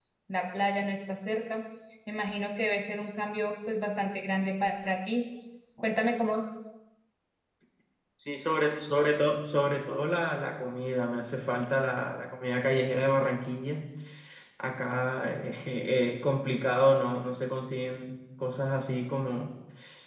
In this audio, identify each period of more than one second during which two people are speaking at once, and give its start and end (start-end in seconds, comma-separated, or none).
none